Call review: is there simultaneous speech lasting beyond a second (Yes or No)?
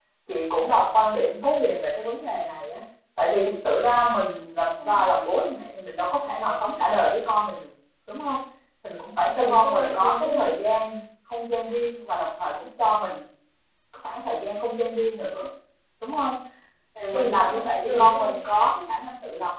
Yes